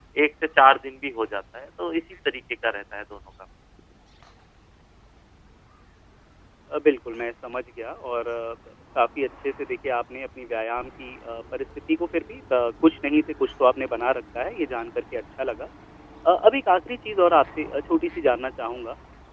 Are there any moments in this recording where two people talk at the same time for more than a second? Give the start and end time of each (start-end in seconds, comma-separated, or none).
none